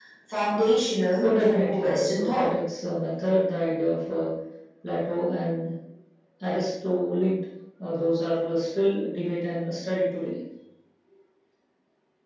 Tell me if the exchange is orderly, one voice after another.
No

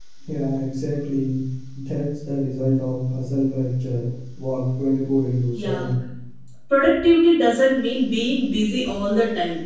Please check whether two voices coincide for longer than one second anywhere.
No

